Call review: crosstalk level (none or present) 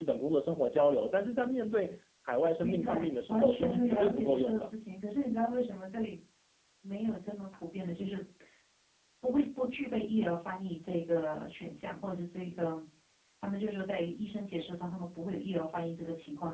present